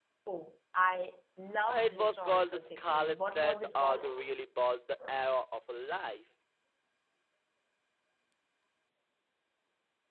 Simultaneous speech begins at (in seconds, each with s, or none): 1.7 s